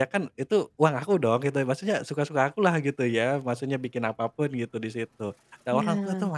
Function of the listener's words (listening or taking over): listening